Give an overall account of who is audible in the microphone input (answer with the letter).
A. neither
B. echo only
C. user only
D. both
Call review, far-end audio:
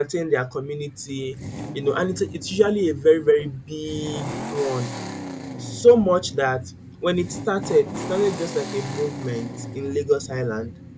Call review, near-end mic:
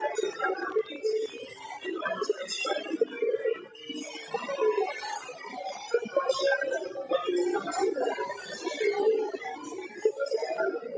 B